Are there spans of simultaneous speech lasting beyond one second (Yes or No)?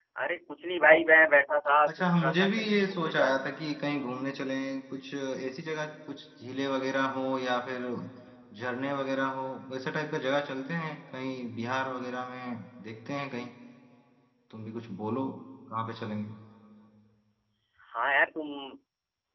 Yes